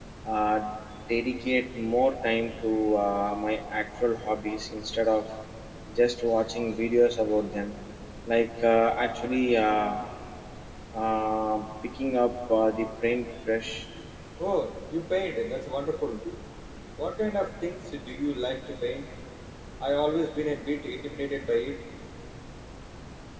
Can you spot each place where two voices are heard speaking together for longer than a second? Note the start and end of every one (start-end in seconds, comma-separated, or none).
none